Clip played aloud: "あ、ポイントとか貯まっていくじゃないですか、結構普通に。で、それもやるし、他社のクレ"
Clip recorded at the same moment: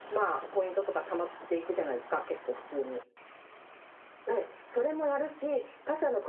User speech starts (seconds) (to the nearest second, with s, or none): none